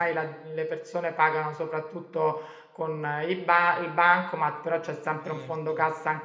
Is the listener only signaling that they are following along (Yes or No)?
Yes